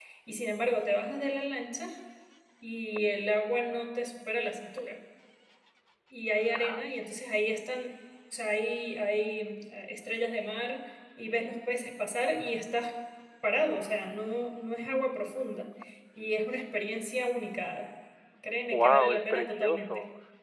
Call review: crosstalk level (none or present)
present